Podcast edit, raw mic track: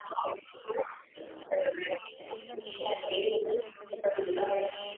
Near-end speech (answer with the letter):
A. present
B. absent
A